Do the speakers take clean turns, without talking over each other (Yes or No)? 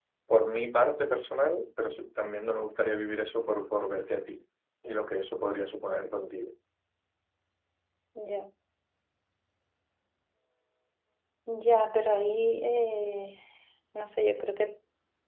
Yes